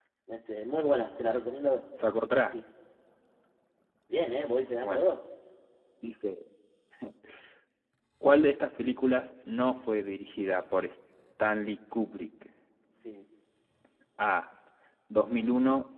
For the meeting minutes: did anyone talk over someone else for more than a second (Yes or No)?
No